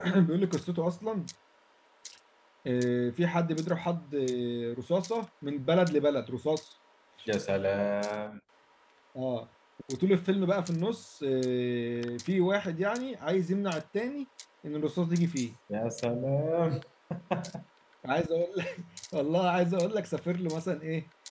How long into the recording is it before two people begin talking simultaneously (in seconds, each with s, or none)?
none